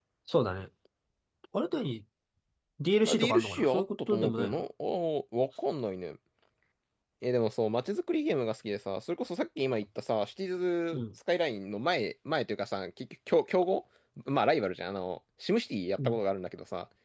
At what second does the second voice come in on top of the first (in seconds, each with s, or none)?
3.1 s